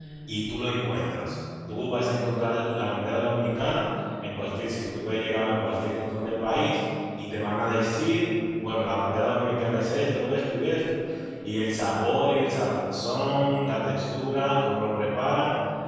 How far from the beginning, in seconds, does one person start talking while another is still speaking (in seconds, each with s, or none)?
none